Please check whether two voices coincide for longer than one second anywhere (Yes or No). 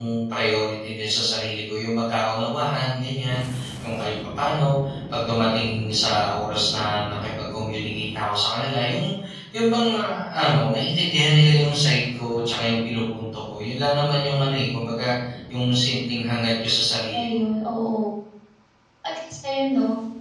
No